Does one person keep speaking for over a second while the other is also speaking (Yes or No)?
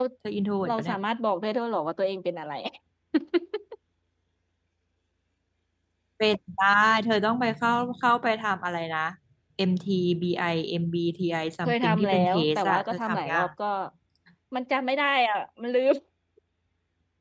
Yes